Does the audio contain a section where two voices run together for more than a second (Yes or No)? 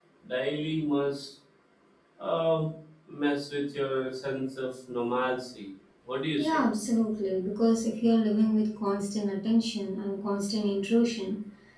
No